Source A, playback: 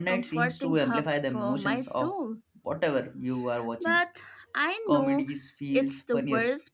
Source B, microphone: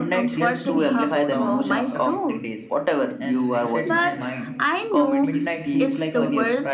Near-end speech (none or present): present